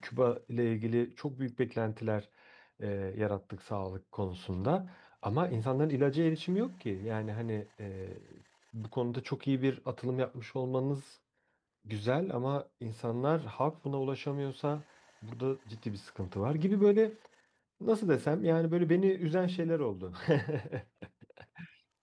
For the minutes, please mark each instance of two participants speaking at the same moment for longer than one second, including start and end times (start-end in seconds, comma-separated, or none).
none